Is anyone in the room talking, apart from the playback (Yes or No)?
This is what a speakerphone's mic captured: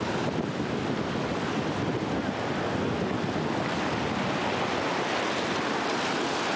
No